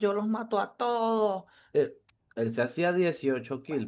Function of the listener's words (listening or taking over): listening